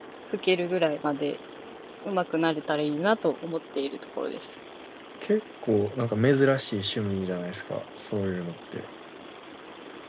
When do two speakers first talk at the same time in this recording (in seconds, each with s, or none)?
none